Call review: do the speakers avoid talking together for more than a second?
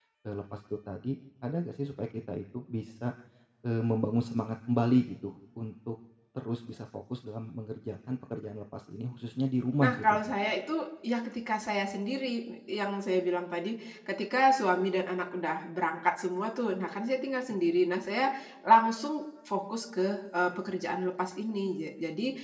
Yes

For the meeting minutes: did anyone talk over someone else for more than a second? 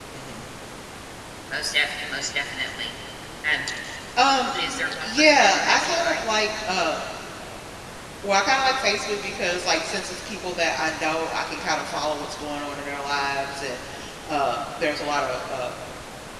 Yes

